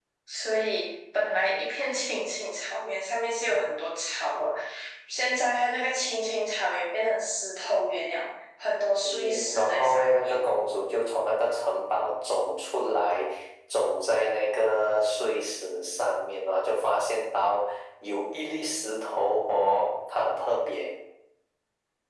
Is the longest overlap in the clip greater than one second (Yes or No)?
Yes